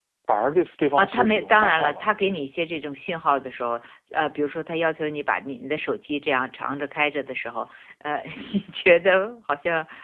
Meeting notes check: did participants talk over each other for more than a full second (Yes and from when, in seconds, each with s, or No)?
Yes, from 1.0 s